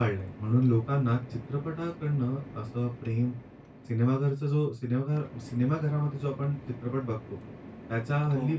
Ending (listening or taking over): listening